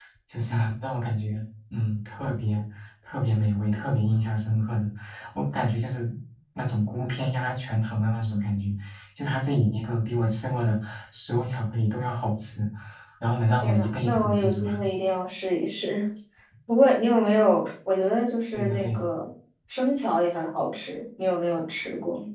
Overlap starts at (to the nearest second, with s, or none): 14 s